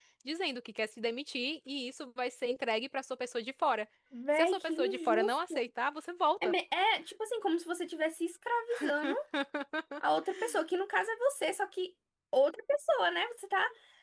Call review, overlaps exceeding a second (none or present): present